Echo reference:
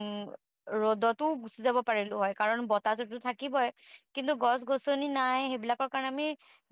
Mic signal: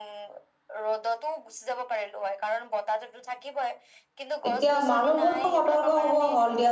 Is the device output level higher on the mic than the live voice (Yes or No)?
No